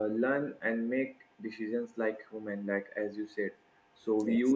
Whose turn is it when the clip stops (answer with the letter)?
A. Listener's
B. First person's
B